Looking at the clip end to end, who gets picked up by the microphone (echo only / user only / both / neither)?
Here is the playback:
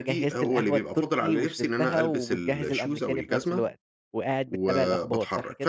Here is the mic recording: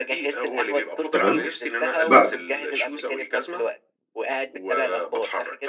both